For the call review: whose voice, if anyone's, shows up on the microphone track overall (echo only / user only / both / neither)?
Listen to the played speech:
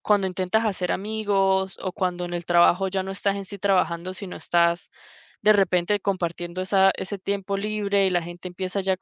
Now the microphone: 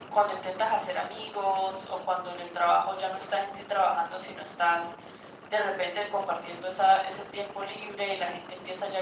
echo only